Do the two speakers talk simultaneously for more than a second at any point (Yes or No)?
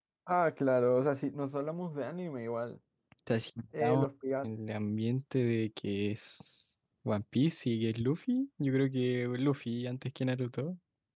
No